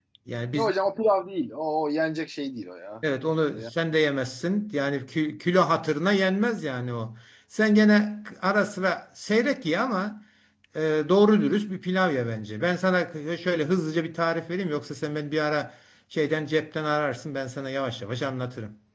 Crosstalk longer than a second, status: none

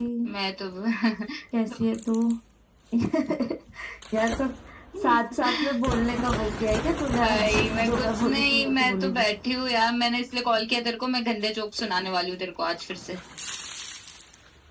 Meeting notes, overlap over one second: present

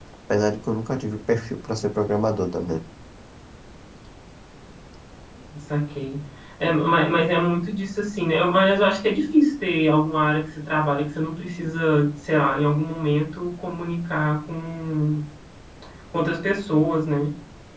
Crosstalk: none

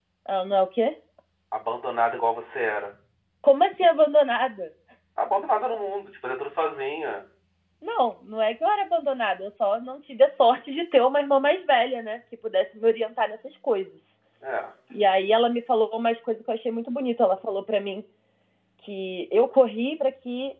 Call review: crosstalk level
none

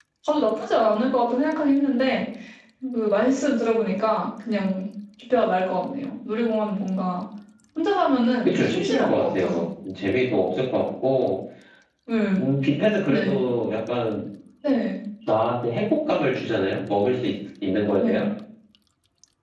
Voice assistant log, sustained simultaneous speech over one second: present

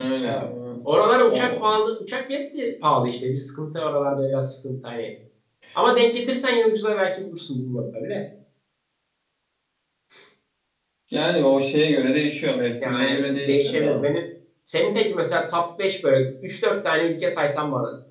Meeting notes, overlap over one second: present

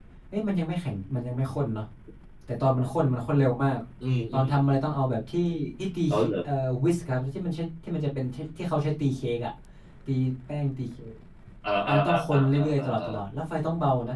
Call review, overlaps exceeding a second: present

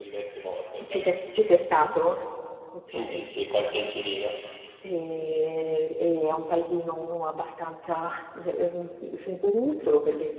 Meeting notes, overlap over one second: none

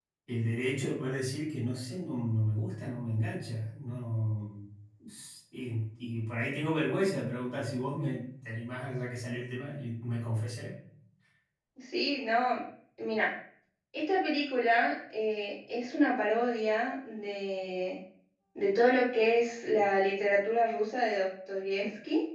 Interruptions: none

